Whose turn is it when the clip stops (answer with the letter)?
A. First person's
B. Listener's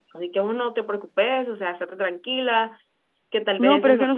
B